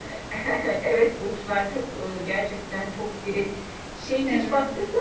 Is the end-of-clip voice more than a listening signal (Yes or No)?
No